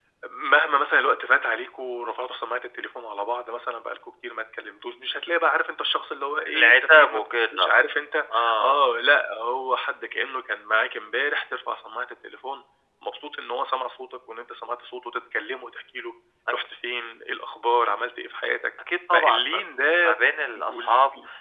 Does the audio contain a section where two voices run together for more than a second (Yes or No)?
Yes